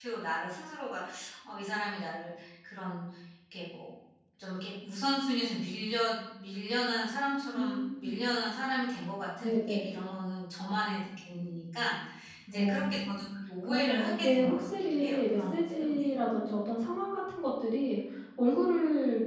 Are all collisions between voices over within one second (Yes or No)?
No